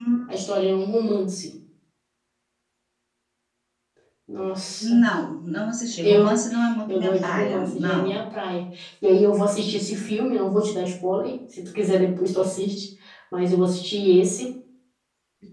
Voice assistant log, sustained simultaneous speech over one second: present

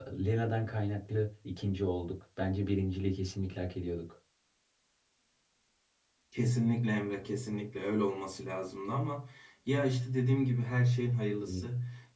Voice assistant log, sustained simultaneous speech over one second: none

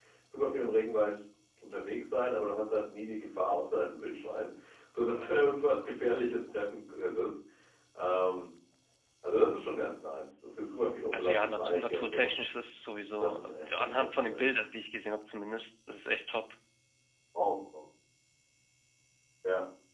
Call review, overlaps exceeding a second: present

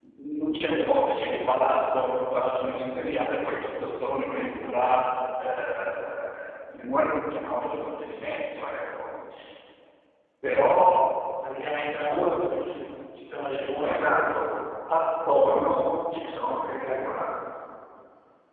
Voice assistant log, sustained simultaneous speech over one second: none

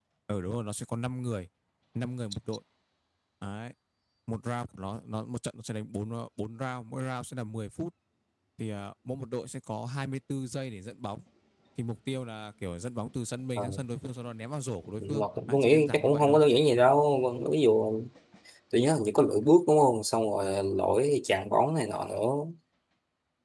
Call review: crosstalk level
present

